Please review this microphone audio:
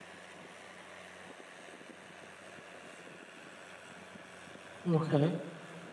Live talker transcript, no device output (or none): Okay.